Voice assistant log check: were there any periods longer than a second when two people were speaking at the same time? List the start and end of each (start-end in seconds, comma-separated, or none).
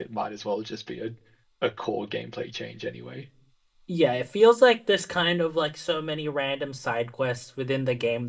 none